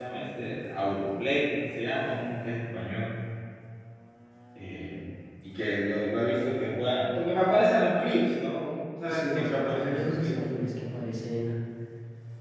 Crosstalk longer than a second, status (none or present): present